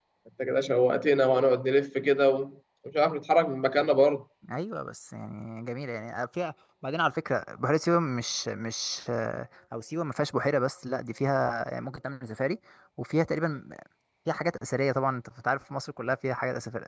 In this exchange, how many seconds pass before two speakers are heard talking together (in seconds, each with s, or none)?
none